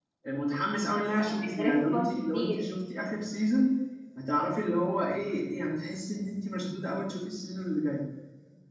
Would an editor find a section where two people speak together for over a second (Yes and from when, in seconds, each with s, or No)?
Yes, from 0.9 s